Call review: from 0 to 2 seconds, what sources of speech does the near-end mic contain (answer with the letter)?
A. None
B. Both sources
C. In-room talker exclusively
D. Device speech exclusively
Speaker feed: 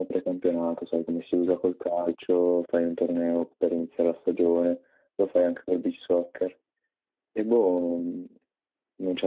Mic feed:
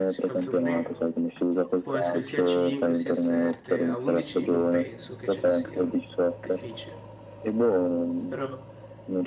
B